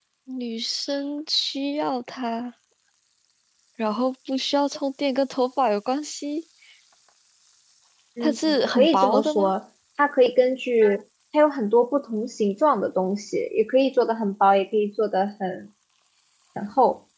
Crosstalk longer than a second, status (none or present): present